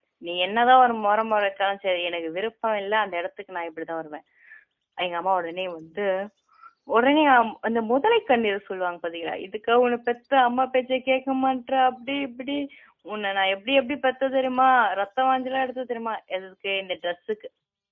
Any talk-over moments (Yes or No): No